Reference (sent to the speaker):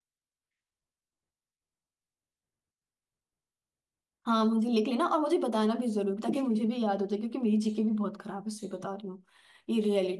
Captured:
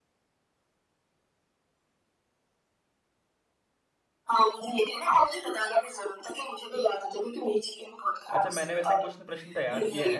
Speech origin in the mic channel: both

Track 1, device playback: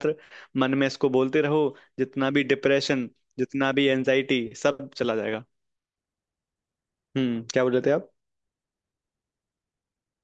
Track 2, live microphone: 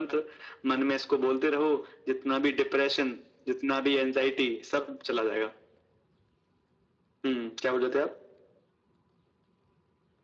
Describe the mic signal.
echo only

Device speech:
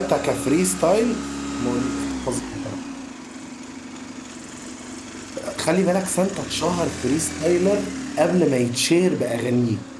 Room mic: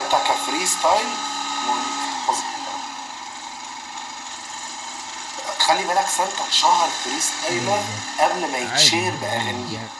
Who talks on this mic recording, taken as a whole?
both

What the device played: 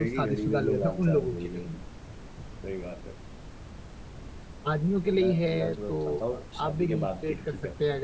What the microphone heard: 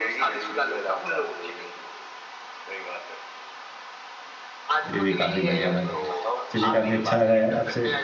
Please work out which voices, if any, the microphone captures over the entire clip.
both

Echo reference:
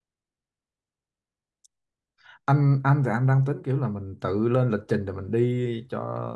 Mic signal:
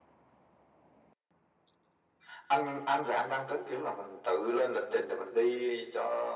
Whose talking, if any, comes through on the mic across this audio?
echo only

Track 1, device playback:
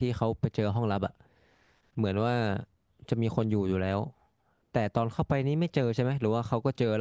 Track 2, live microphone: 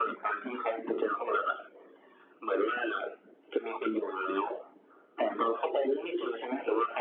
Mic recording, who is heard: echo only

